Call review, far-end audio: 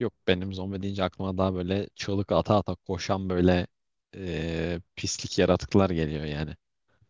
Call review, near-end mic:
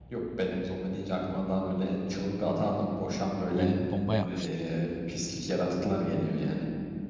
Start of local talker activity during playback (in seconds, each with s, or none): 3.5 s